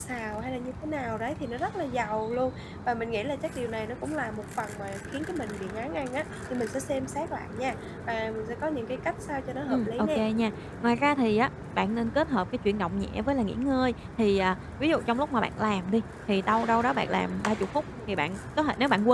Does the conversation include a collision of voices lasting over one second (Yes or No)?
No